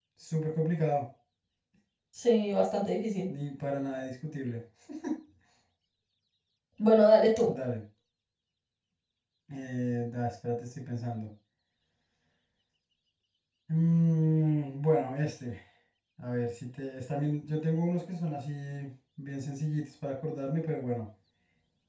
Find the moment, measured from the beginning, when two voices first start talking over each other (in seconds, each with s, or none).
none